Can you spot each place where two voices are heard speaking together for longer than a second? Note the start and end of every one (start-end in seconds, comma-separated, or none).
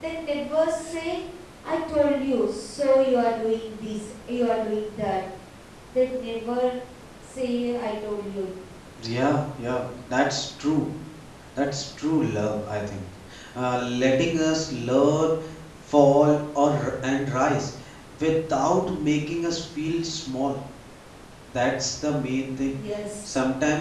none